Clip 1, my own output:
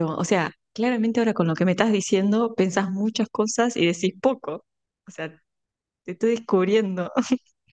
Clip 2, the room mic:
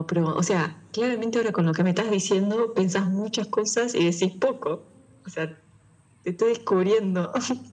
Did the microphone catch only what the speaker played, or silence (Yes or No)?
Yes